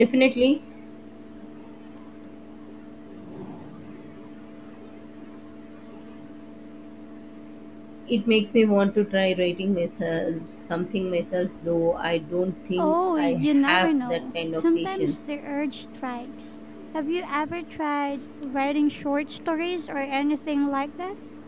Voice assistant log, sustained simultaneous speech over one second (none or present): present